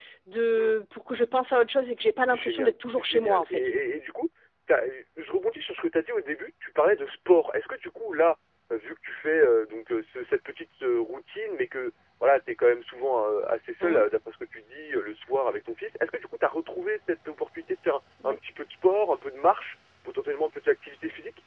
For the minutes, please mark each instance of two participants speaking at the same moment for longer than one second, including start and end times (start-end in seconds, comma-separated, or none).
2.3-3.7